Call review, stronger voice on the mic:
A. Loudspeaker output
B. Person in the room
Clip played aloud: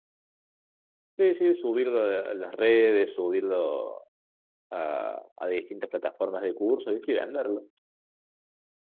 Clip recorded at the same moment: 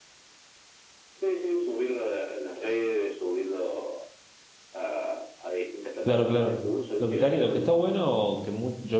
B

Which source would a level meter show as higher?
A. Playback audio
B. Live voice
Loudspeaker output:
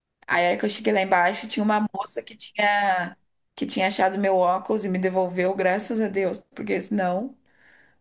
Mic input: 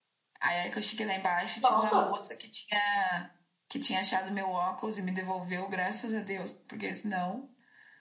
B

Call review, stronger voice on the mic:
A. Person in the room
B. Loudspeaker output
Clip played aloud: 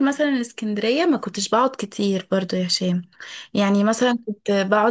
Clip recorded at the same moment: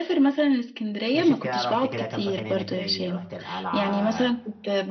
B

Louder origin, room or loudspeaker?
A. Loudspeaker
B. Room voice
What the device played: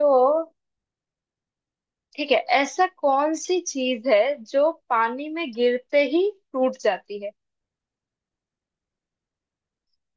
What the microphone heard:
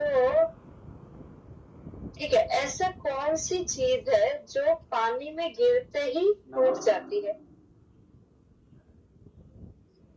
A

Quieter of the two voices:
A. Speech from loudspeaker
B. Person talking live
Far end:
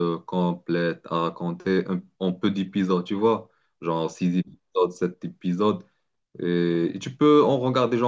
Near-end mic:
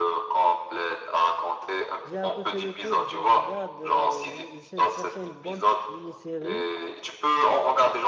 B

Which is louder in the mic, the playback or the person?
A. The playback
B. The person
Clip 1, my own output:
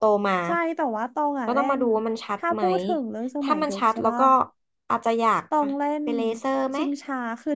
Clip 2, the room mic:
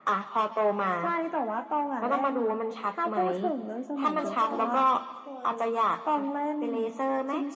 A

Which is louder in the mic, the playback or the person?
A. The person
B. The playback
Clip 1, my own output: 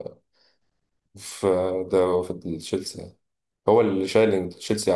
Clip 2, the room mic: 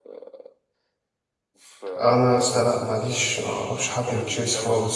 A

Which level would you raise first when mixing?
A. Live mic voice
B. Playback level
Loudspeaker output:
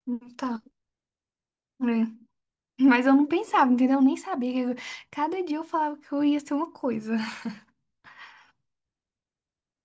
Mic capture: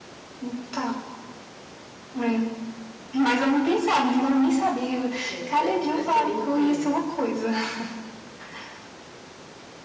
A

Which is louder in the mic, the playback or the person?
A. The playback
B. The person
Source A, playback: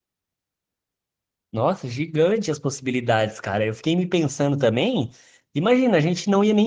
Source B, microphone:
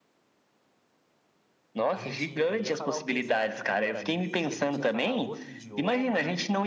A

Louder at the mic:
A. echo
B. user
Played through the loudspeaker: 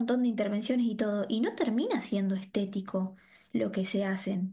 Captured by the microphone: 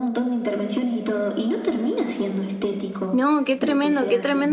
B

